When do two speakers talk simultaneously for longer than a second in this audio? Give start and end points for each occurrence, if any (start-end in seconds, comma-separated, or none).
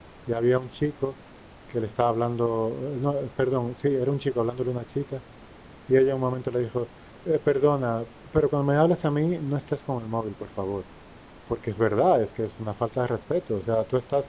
none